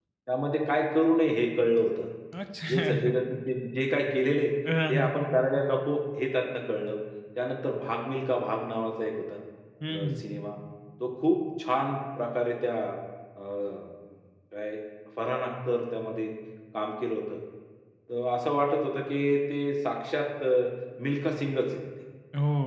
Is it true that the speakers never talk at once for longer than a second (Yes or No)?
Yes